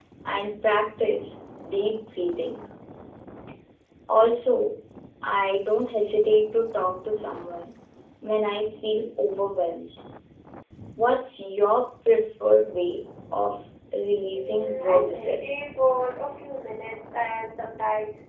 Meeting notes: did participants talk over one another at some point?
Yes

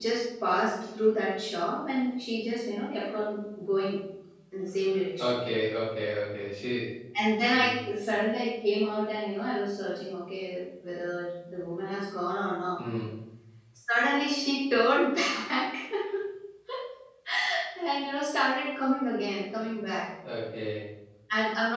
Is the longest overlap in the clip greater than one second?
No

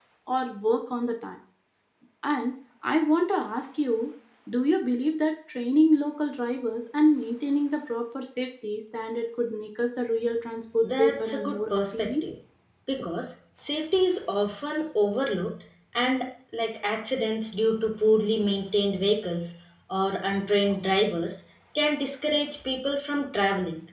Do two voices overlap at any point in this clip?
Yes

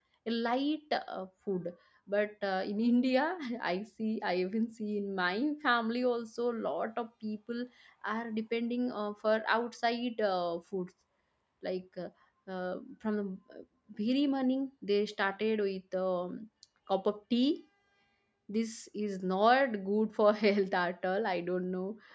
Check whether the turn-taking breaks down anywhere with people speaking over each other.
No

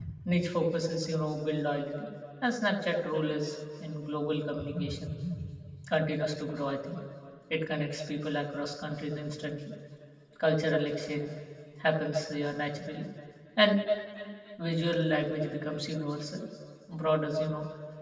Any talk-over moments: No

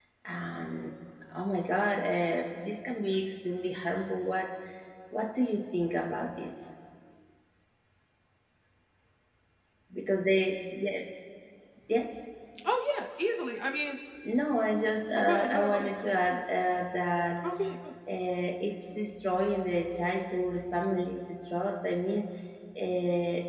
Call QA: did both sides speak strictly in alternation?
No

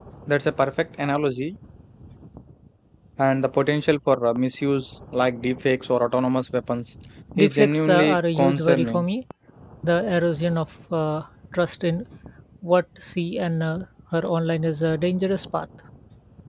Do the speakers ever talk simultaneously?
Yes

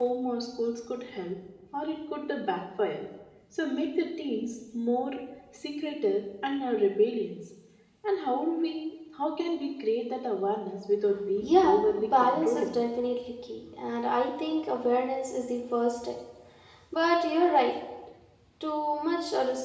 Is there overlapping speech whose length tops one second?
Yes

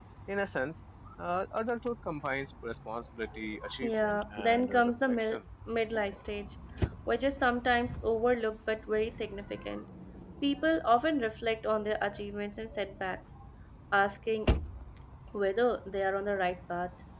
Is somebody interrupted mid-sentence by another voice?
Yes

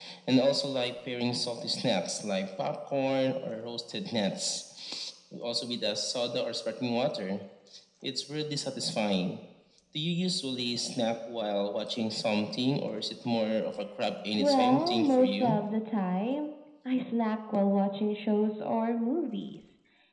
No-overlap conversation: No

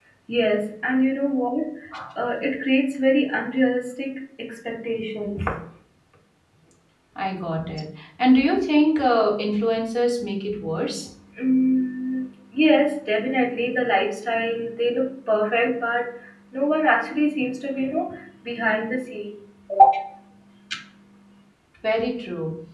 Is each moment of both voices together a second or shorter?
Yes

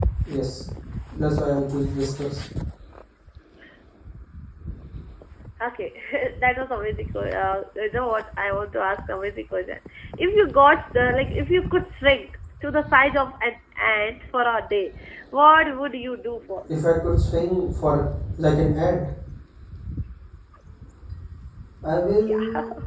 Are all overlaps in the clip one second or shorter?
Yes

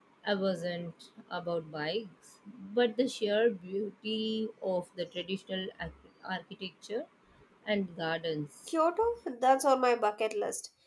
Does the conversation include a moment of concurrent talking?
No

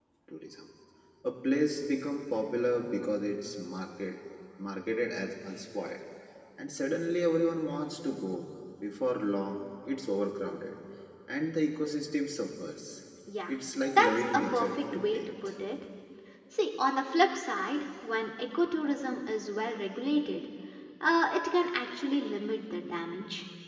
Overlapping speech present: Yes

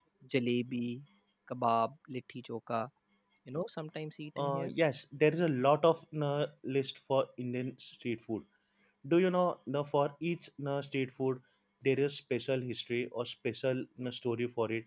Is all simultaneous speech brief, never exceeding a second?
Yes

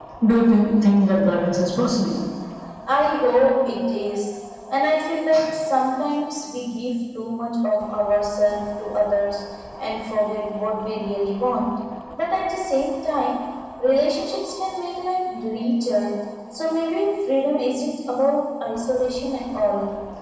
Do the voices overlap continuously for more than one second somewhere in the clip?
No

